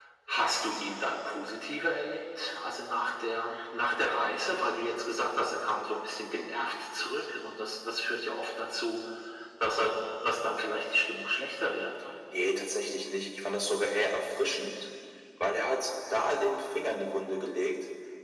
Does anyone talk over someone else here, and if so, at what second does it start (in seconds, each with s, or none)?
none